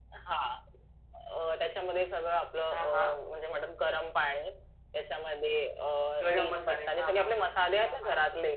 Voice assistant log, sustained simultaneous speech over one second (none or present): present